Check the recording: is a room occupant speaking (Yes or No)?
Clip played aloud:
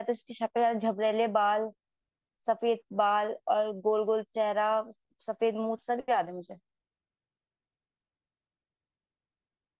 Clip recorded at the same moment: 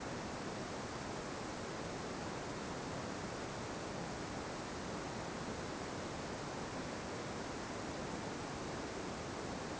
No